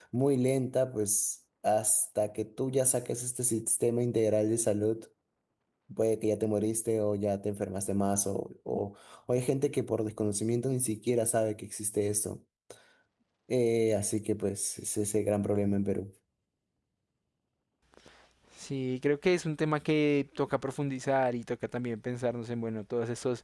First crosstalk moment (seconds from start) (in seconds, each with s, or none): none